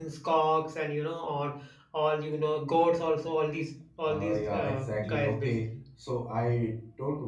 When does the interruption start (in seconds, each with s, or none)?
4.0 s